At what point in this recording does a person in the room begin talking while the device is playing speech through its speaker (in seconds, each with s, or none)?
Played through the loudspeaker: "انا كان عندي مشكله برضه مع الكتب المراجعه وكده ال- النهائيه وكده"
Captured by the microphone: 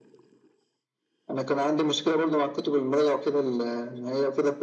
none